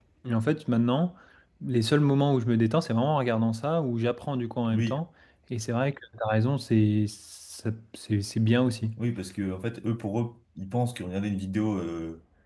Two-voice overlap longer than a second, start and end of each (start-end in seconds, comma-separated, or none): none